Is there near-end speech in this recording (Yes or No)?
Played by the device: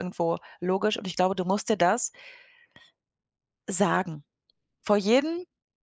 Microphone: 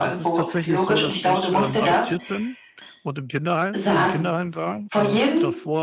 Yes